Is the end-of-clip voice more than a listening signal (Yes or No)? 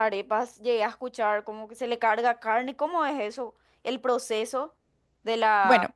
Yes